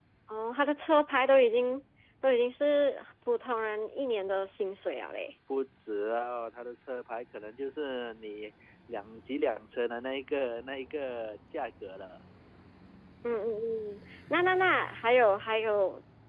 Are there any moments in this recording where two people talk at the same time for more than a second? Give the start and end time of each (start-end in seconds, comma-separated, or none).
none